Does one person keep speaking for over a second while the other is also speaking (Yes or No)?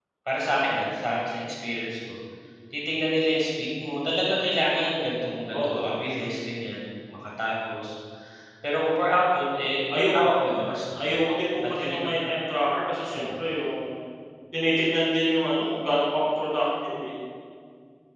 No